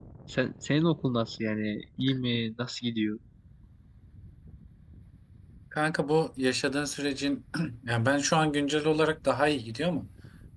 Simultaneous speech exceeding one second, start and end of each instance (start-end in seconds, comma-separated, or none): none